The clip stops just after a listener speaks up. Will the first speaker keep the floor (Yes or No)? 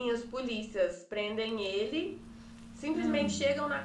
Yes